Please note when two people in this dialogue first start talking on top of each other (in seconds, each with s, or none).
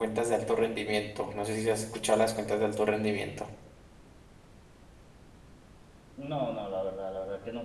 none